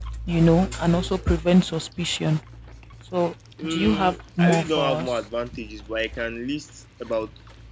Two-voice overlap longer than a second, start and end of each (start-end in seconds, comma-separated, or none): 3.6-5.2